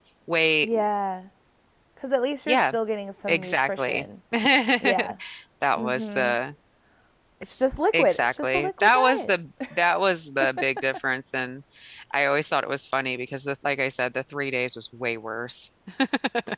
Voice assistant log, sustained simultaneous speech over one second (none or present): present